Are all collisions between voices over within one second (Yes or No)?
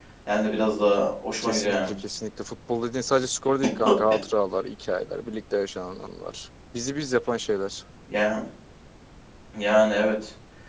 Yes